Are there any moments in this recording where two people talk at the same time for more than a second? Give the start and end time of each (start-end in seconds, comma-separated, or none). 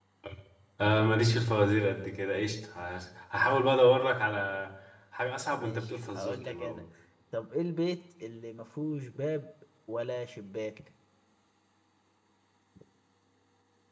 5.6-6.8